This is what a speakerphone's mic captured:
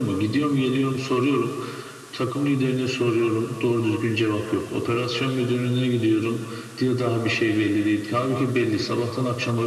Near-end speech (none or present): none